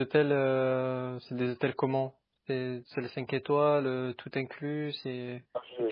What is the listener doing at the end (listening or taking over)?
taking over